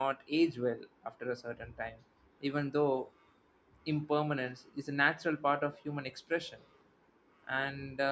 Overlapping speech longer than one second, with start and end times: none

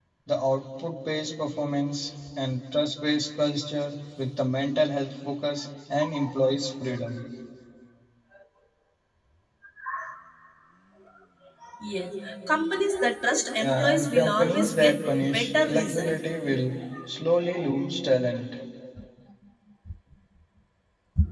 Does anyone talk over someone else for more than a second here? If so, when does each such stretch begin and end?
13.6-16.2

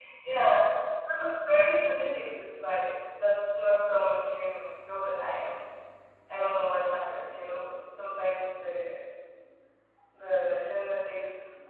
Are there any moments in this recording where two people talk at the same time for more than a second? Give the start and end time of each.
none

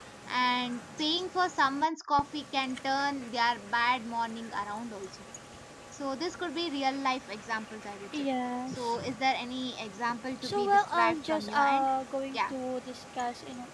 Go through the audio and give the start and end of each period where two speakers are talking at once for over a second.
10.4-11.9

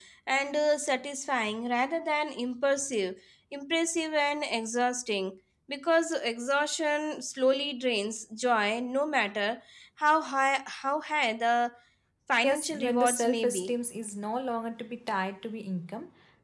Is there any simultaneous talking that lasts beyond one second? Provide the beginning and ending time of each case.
12.4-13.7

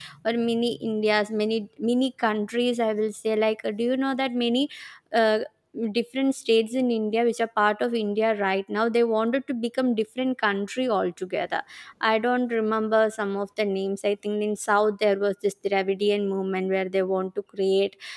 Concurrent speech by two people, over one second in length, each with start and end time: none

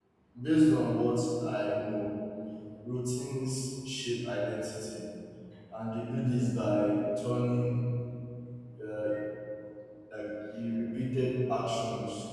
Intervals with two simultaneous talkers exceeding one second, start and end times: none

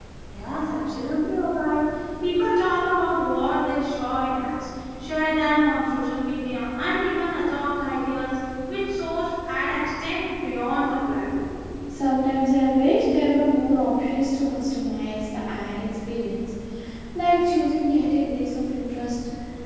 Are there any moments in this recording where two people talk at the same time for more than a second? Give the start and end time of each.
none

